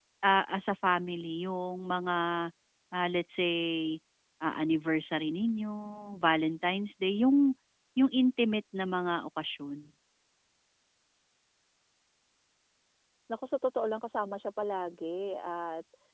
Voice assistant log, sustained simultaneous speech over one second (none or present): none